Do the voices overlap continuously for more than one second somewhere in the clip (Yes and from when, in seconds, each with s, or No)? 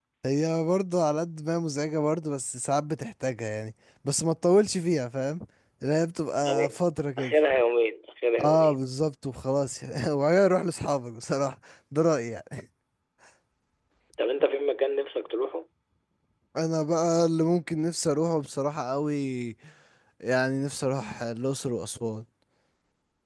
No